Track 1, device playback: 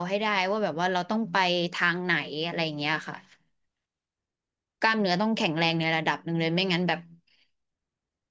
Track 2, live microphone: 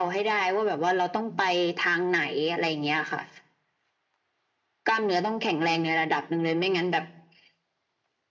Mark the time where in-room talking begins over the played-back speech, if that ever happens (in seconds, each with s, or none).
none